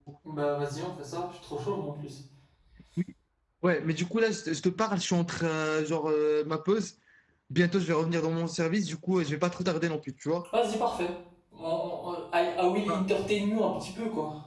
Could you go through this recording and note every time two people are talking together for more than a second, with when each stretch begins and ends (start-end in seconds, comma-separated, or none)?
none